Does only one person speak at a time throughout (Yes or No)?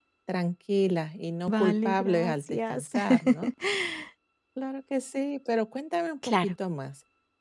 No